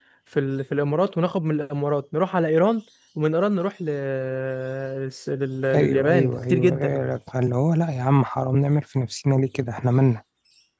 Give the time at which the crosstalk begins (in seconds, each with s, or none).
5.8 s